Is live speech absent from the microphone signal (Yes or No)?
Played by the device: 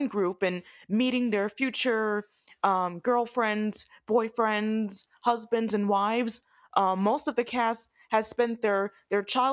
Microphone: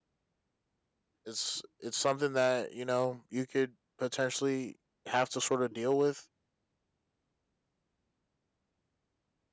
No